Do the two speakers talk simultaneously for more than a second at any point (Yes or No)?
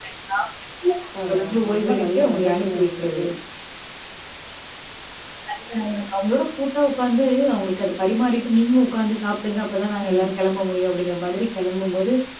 Yes